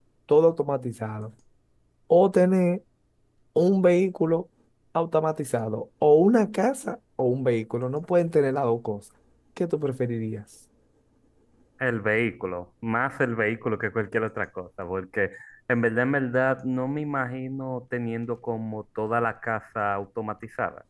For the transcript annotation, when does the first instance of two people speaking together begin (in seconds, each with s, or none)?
none